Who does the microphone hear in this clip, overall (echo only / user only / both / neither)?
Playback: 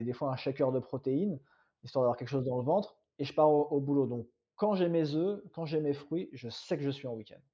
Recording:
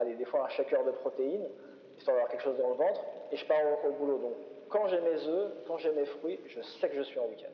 echo only